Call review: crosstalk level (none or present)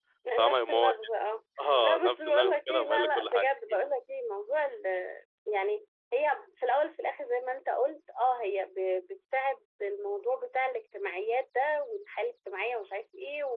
present